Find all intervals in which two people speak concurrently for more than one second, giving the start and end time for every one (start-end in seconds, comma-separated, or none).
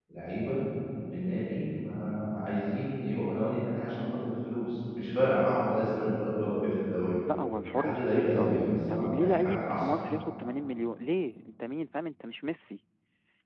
7.7-9.9